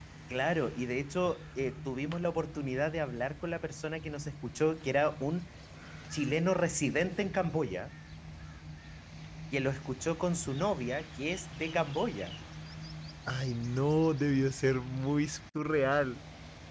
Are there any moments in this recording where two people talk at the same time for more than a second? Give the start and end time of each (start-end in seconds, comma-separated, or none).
none